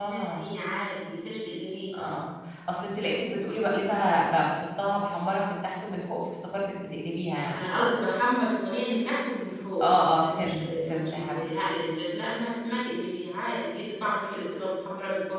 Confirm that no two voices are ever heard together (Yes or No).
No